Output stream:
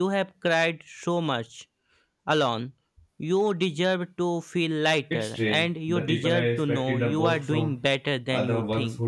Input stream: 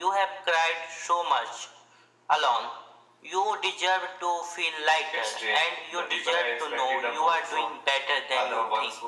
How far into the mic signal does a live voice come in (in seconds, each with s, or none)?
none